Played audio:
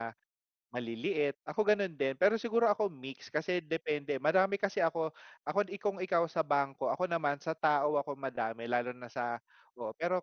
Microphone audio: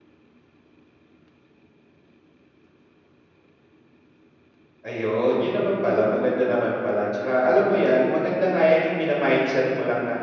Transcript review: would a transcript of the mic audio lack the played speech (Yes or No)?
Yes